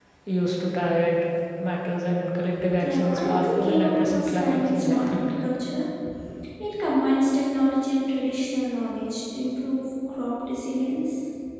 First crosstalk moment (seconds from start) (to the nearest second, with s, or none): 3 s